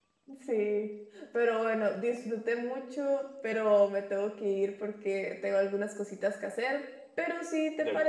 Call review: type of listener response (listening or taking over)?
listening